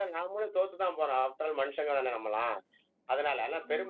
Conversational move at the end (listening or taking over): listening